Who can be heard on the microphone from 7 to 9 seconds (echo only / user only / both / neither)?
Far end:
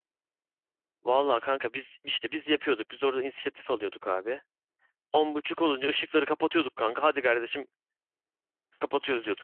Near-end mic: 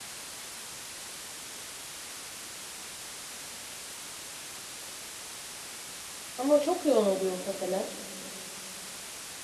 user only